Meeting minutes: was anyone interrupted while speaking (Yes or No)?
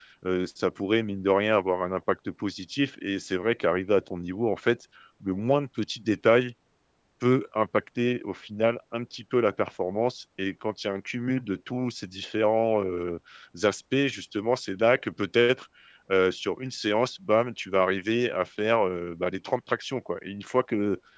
No